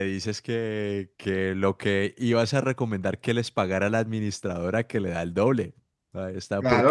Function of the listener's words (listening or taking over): taking over